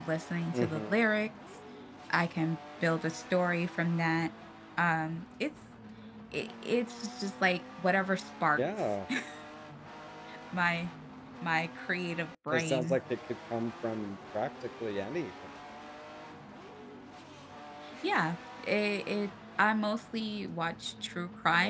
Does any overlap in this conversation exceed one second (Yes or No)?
No